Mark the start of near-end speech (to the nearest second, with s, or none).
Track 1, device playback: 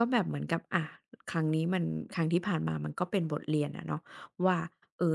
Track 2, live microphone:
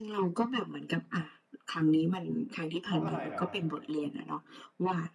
3 s